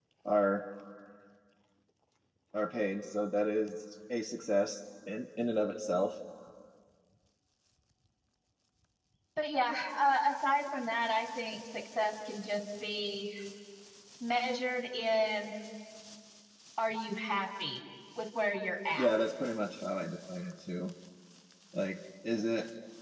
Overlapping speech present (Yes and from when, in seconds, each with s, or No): No